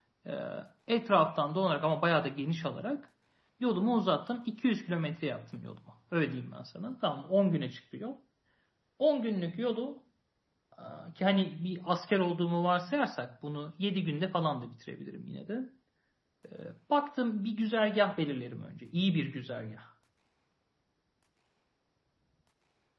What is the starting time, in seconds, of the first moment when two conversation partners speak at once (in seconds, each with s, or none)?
none